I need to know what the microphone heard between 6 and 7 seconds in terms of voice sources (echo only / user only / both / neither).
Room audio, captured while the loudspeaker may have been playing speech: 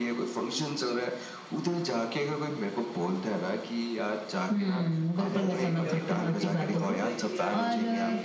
both